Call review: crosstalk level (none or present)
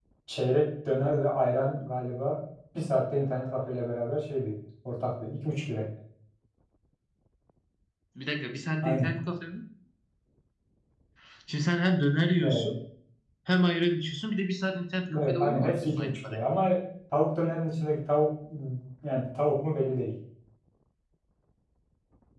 present